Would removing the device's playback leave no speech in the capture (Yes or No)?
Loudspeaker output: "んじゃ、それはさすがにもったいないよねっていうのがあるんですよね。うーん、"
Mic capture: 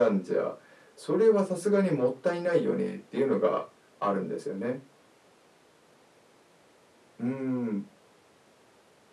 Yes